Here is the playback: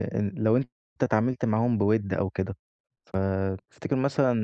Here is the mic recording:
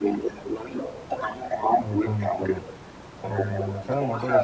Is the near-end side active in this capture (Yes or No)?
Yes